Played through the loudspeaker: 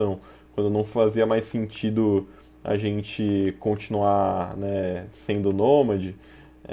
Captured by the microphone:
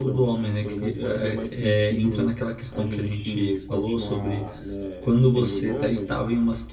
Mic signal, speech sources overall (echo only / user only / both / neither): both